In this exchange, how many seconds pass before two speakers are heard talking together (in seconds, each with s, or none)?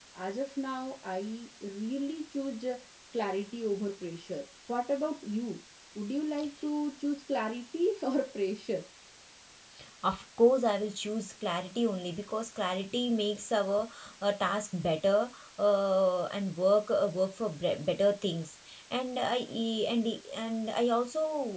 none